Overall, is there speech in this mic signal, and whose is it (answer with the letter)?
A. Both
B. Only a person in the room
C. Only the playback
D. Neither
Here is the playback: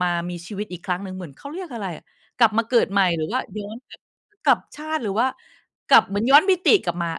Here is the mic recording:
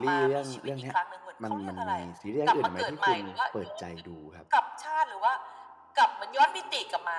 A